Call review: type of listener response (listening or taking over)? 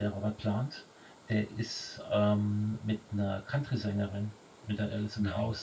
listening